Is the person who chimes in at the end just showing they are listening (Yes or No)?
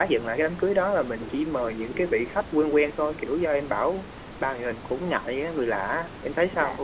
No